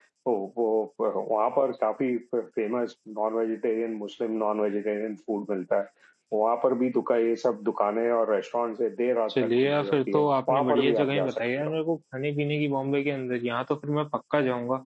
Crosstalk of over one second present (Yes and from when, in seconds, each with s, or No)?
Yes, from 9.3 s